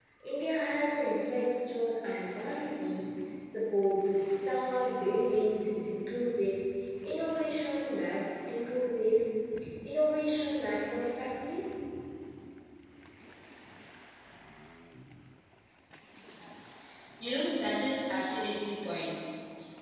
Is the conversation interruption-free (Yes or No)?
Yes